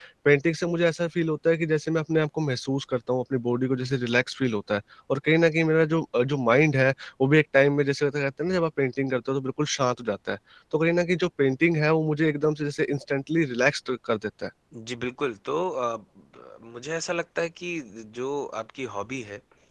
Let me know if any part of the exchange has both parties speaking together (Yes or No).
No